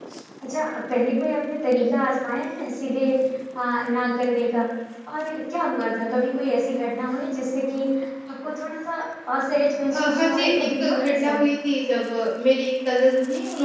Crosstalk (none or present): present